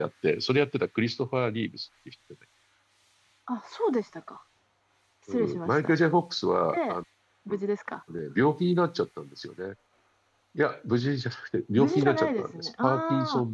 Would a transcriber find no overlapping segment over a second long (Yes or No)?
No